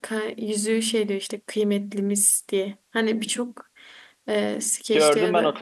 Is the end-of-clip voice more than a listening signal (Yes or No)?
Yes